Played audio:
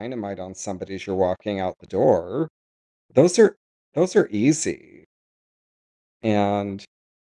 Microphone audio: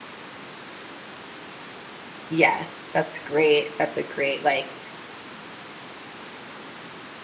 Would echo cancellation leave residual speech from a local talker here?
Yes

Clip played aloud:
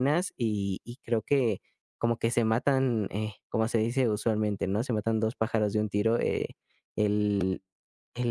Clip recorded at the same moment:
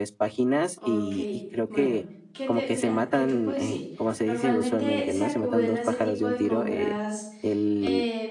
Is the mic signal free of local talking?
No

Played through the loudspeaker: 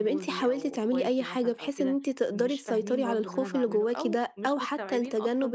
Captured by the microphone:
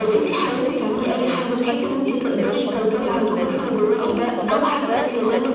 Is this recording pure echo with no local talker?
No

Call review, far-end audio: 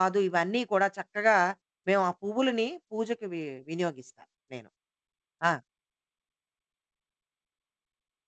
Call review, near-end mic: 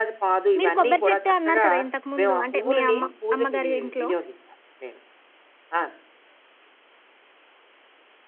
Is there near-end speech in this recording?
Yes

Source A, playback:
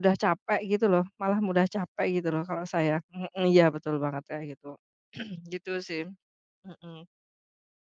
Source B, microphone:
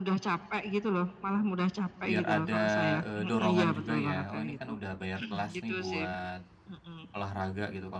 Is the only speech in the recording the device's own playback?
No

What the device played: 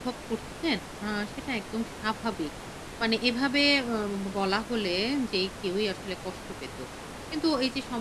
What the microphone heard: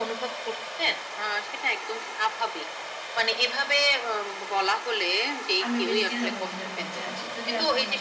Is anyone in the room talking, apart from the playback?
Yes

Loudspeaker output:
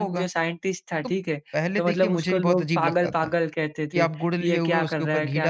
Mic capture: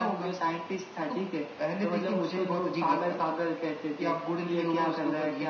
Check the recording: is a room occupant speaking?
No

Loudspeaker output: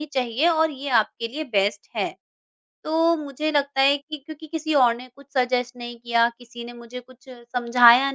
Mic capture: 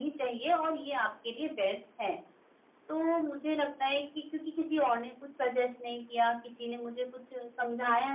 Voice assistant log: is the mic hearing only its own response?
Yes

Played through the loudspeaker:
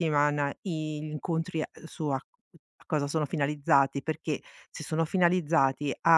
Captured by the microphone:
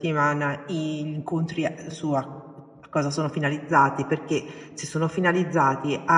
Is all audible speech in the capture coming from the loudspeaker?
Yes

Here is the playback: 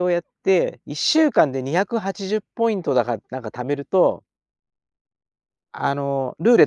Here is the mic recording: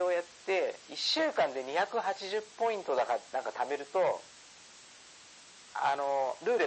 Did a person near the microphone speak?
No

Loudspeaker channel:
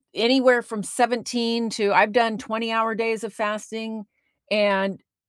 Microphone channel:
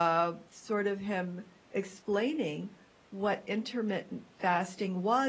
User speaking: Yes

